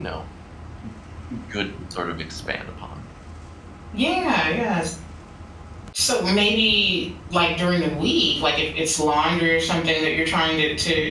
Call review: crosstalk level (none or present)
none